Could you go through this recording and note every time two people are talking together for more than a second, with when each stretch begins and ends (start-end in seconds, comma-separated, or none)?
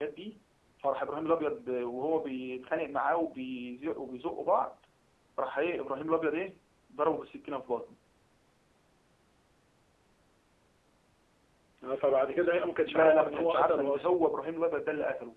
12.8-14.2